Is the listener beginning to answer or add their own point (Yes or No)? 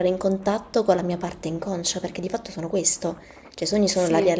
No